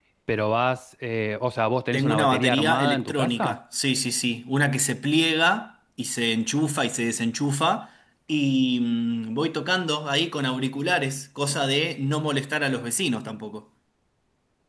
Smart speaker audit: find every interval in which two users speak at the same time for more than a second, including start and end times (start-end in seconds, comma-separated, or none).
1.9-3.6